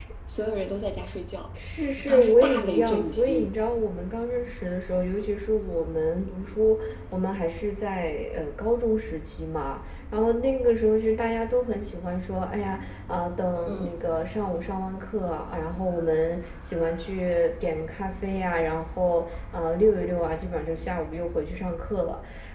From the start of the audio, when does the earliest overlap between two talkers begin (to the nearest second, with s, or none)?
2 s